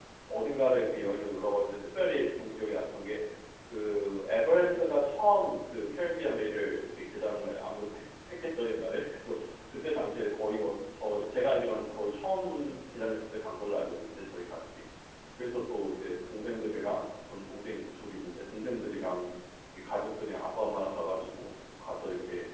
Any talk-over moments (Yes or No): No